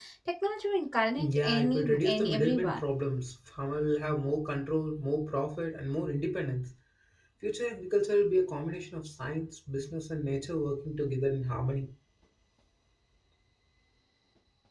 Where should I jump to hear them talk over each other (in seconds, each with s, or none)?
1.2 s